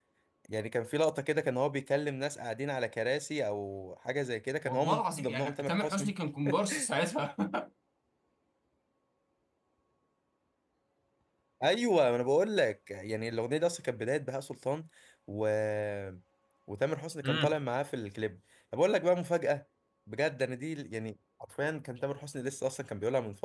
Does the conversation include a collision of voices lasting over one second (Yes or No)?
Yes